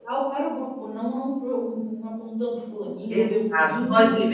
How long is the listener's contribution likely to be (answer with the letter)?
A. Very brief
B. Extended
B